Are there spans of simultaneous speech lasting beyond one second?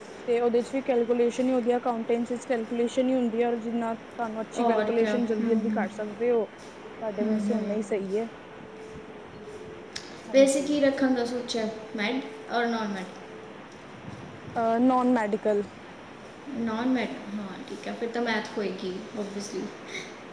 Yes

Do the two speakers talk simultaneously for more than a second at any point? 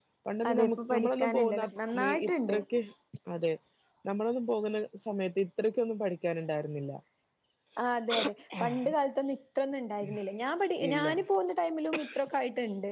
Yes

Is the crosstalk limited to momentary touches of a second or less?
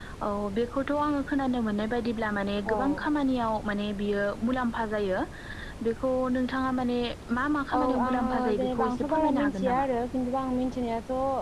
No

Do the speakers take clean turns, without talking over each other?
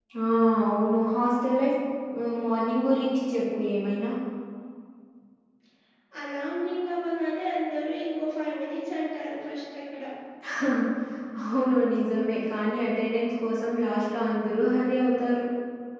Yes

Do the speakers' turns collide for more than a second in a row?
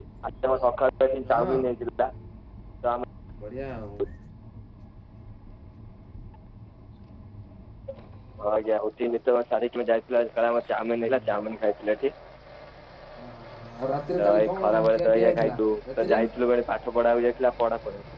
Yes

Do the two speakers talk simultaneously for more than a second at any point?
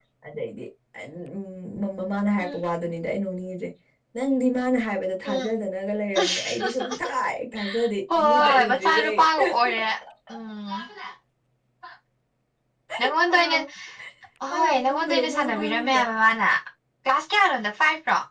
Yes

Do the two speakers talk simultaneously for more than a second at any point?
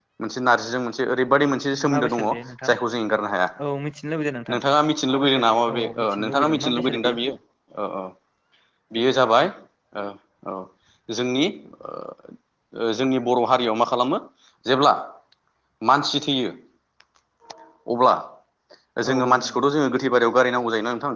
Yes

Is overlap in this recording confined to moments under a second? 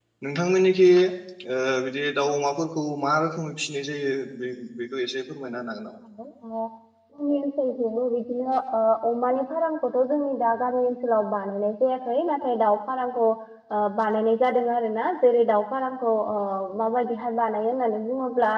Yes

